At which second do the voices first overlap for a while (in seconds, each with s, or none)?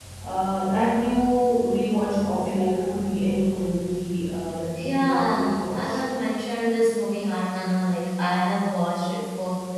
4.8 s